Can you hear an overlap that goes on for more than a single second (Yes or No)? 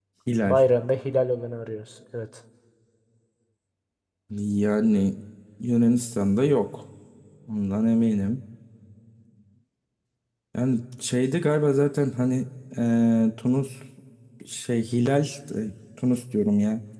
No